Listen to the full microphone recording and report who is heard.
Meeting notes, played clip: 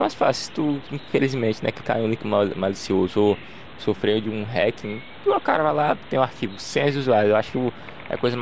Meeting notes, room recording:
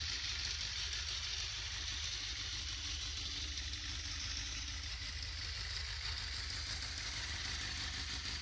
neither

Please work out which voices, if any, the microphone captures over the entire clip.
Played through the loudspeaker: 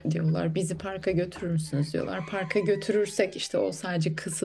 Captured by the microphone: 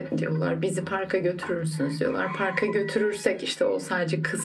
echo only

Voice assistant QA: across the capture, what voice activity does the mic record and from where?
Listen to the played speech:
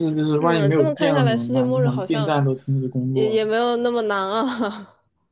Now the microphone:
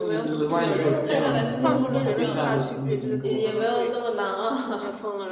both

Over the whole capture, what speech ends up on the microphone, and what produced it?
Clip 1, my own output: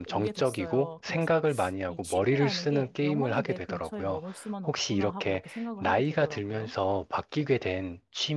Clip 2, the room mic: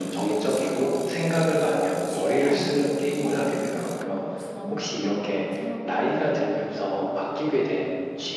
echo only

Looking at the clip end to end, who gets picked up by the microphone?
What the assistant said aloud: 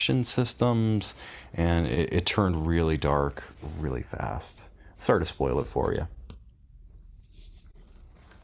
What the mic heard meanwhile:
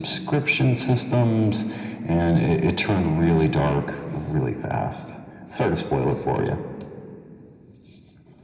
echo only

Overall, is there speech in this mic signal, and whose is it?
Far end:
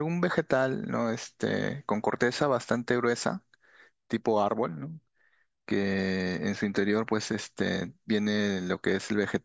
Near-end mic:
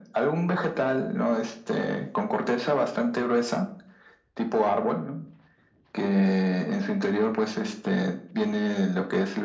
echo only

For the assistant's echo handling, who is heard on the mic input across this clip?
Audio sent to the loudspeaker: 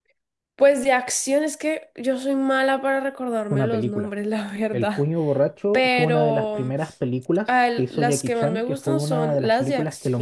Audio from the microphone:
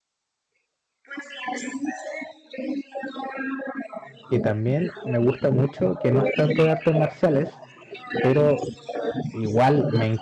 both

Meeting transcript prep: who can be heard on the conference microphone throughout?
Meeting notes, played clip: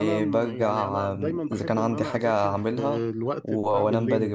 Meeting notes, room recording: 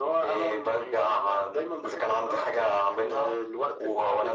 echo only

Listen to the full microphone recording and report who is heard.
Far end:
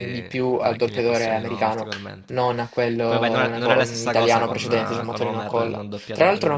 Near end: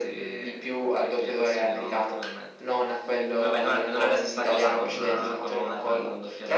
echo only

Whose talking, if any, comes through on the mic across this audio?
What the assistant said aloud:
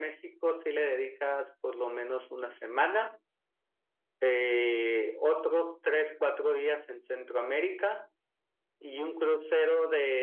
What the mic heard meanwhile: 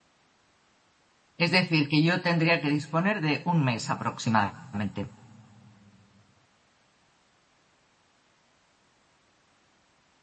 user only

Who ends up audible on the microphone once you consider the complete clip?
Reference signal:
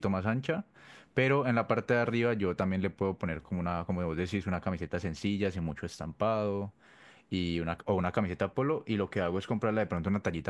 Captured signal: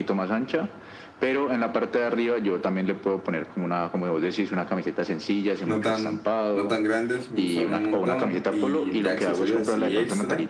both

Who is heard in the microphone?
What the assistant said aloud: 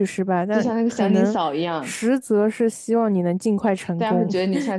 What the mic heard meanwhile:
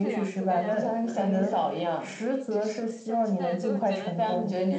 both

